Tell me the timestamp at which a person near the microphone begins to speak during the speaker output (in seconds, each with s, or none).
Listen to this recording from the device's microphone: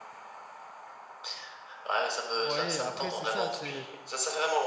2.4 s